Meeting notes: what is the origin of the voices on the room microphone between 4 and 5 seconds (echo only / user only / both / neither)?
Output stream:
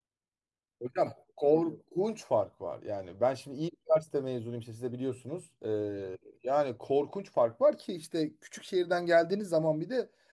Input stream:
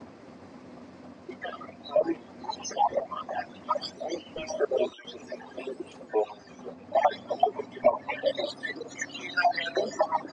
echo only